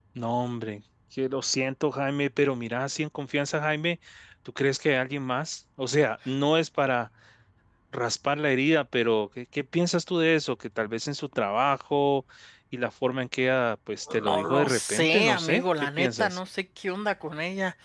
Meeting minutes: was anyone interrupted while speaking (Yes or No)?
Yes